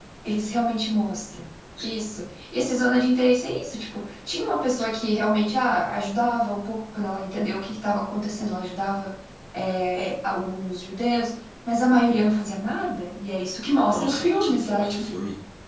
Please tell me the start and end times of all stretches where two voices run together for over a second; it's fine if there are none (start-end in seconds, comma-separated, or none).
13.8-15.1